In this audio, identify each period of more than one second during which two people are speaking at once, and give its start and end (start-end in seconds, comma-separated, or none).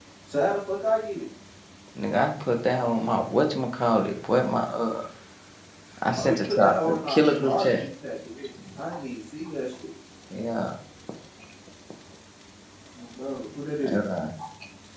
6.2-7.9